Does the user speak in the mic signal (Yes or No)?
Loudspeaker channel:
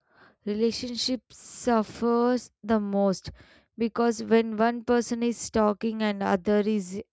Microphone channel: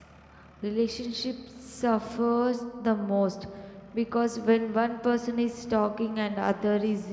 No